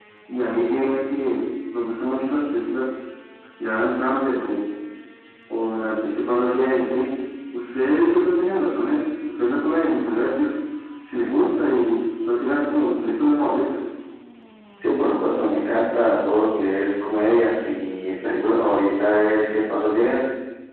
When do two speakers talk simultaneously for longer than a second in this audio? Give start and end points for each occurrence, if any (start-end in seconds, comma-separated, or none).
none